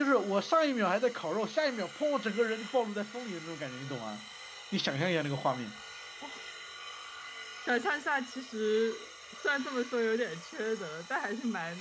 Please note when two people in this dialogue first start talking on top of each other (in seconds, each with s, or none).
none